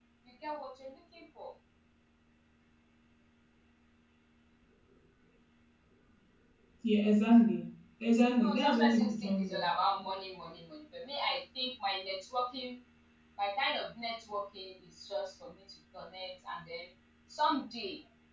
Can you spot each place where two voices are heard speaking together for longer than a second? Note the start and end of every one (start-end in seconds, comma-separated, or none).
8.4-9.8